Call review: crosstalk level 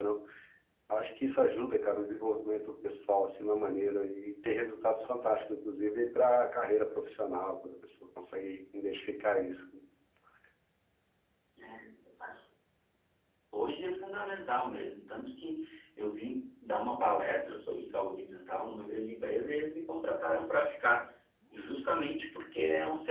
none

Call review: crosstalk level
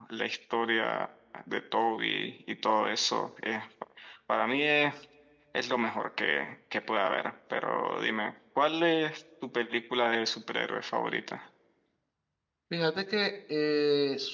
none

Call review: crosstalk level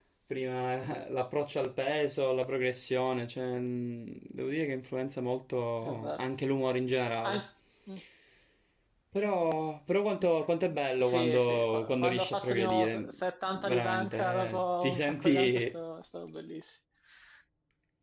present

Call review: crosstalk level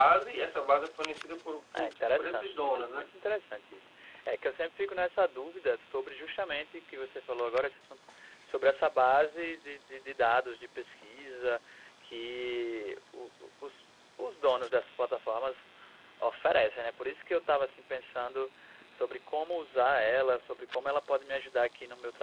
present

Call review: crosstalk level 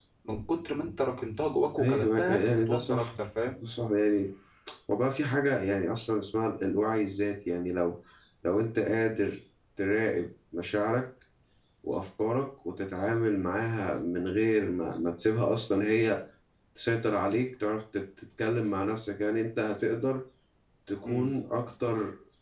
present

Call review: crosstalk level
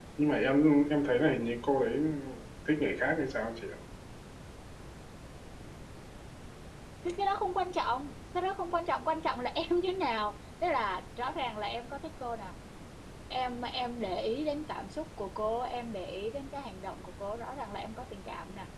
none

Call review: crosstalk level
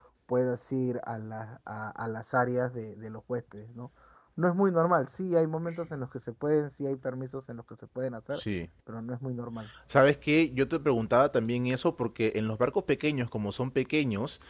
none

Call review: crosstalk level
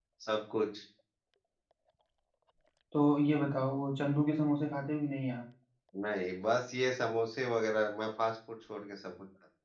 none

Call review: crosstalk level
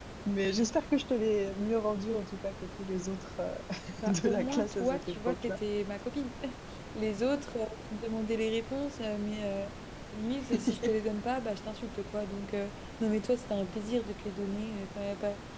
present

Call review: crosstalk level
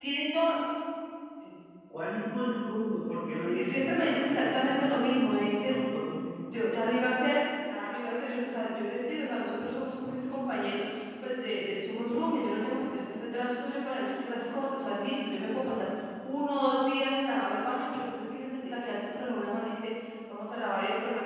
present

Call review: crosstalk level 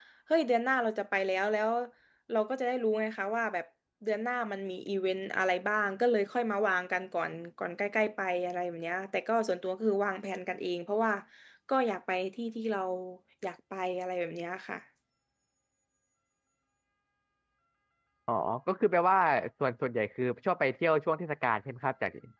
none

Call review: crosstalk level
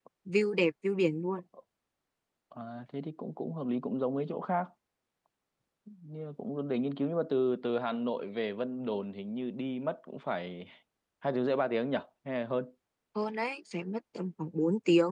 none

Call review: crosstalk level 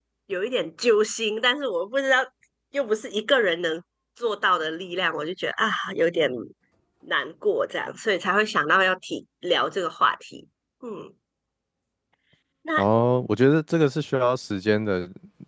none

